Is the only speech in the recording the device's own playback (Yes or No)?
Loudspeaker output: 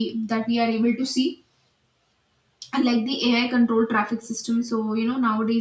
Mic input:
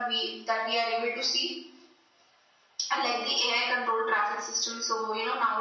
Yes